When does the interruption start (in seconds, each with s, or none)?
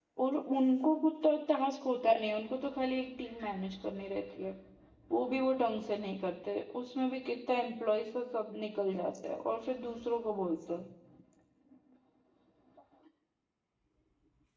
none